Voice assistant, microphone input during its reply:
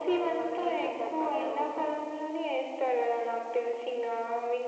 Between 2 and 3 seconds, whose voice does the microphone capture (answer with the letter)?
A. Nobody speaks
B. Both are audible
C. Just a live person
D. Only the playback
D